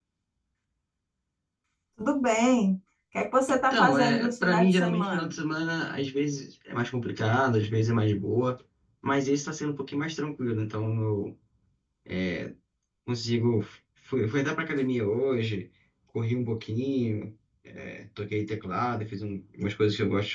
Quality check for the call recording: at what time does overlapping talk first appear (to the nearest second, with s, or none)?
3 s